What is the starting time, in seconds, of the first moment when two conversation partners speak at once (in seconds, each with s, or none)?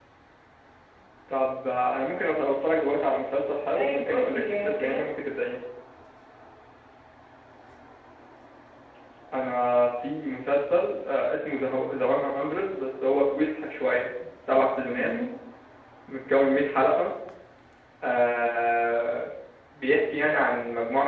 3.8 s